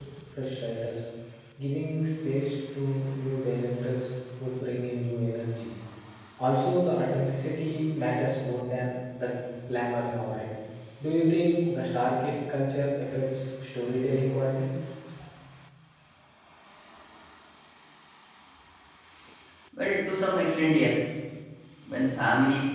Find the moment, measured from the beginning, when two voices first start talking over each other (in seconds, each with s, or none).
none